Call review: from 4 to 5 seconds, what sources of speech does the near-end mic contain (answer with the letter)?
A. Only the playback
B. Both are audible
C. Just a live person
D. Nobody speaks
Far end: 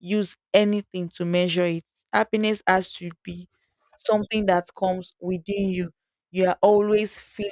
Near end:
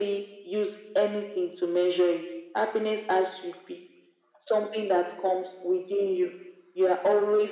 A